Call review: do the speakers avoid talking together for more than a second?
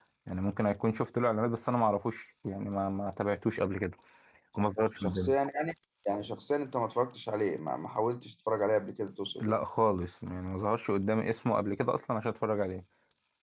Yes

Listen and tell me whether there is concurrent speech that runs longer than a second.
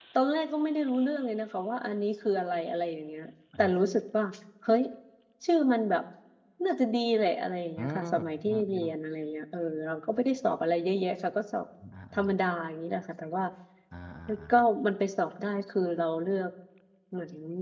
No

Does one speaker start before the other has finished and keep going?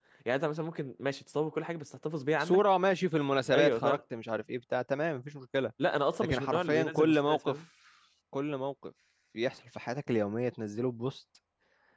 Yes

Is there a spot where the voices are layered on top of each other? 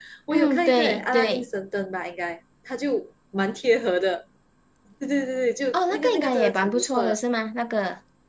Yes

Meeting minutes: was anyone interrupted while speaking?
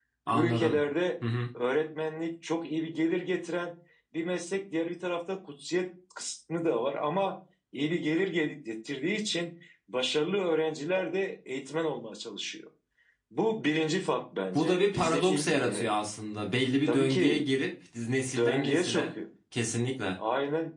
Yes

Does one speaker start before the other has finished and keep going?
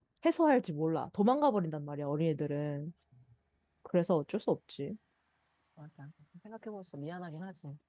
No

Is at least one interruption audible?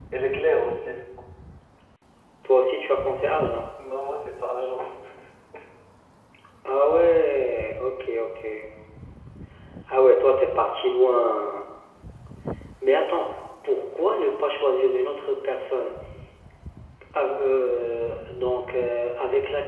No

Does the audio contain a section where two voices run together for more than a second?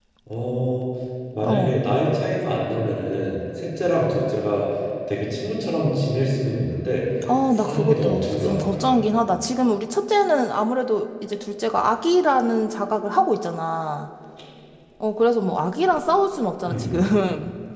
Yes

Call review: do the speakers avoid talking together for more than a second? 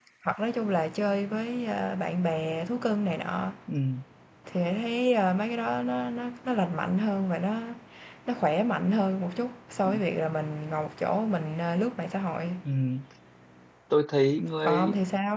Yes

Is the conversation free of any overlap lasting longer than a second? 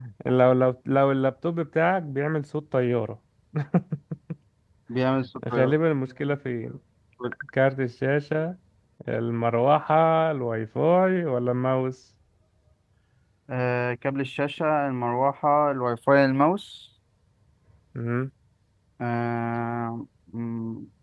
Yes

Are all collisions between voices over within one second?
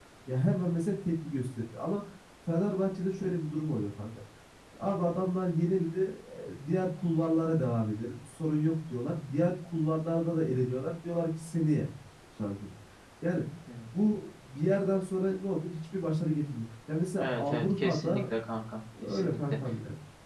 No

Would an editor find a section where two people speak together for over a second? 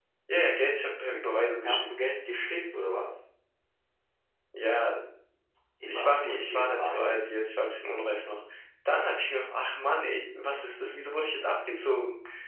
Yes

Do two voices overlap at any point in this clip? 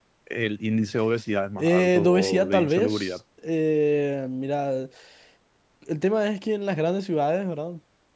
Yes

